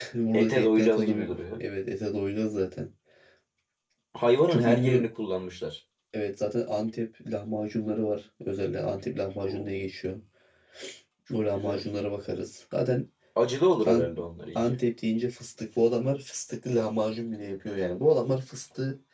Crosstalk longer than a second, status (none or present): present